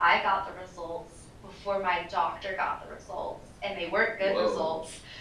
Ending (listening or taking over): listening